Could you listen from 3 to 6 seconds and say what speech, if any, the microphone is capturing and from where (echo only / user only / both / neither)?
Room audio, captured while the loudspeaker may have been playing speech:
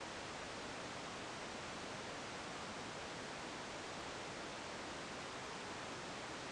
neither